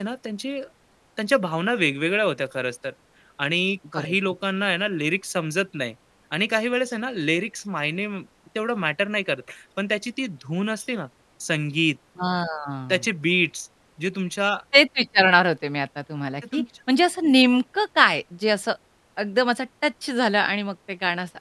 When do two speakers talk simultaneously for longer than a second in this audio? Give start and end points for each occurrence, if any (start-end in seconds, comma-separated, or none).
none